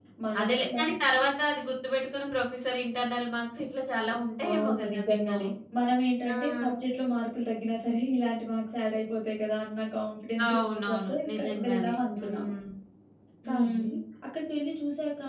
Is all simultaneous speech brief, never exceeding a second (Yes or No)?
No